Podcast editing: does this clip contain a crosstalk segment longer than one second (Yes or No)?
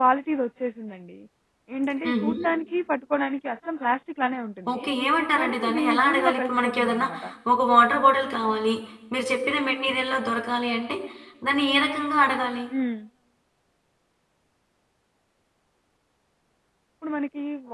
Yes